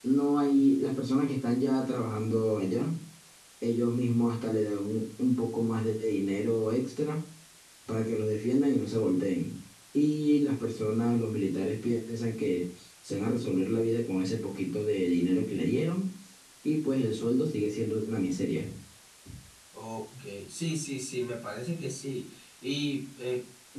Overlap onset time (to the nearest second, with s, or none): none